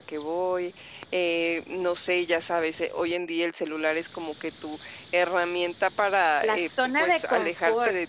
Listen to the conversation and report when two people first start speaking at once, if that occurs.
6.4 s

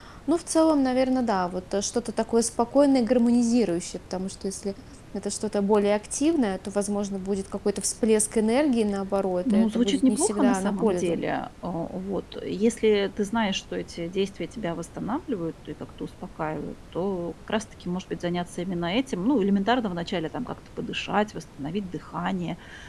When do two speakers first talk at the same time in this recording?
9.4 s

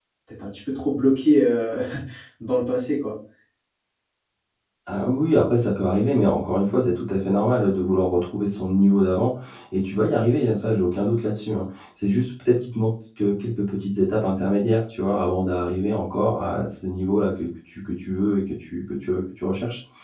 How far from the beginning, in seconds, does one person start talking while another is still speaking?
none

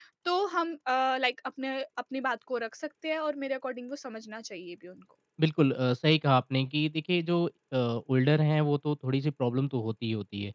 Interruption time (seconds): none

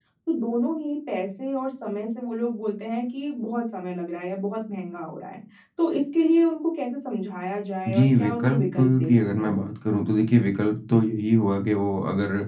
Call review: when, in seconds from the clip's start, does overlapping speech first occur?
7.9 s

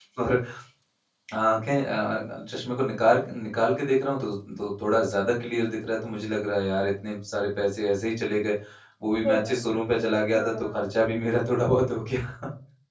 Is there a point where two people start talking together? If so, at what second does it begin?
9.2 s

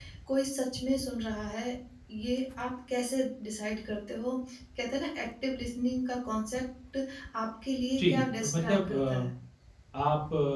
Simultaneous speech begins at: 8.0 s

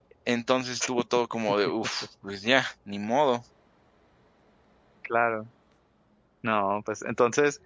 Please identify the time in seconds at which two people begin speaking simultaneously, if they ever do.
none

